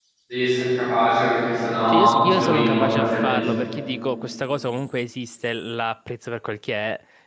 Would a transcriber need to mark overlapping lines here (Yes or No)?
Yes